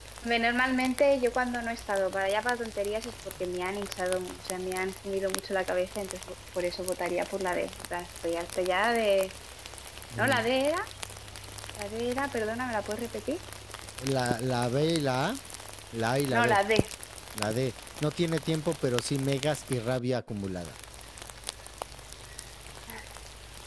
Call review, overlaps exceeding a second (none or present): none